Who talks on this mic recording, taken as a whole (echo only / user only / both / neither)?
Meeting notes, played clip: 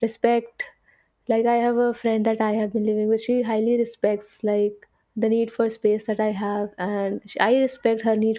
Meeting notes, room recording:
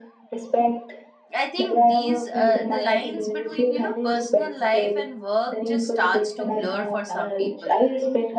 both